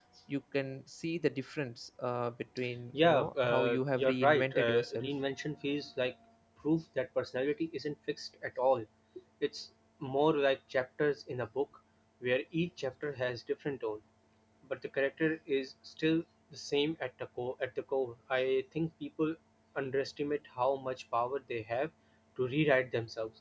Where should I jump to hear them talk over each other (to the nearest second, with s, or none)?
3 s